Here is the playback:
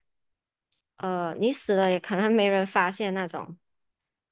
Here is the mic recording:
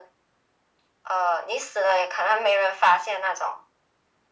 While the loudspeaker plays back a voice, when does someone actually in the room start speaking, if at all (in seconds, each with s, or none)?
none